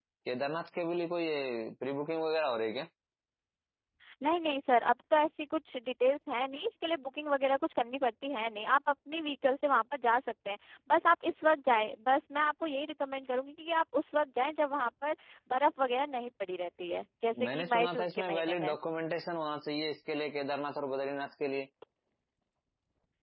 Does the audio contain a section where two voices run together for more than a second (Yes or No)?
Yes